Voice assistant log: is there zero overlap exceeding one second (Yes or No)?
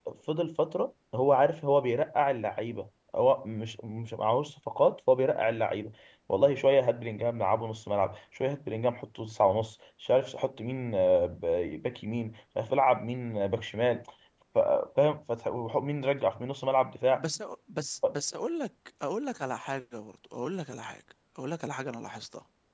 Yes